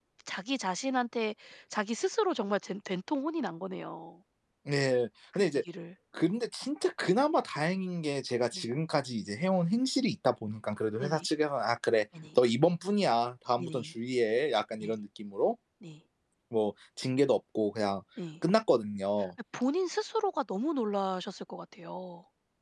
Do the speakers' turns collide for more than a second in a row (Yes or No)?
No